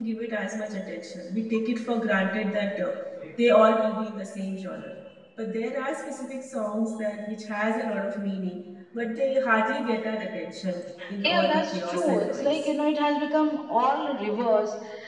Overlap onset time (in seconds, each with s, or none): 11.0 s